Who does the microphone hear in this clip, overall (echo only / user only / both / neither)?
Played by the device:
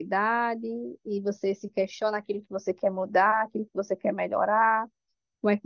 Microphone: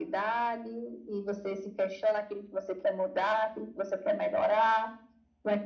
echo only